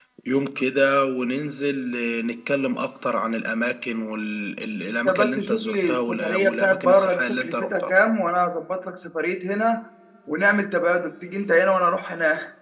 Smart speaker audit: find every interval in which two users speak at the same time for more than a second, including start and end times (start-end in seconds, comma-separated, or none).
5.0-7.9